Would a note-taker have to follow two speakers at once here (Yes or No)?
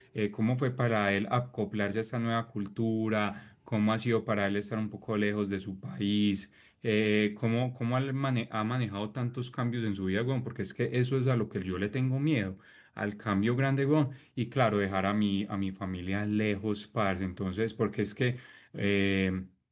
No